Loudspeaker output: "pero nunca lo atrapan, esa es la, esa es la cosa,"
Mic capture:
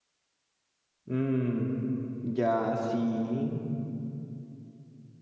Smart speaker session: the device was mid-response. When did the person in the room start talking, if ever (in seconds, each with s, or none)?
1.0 s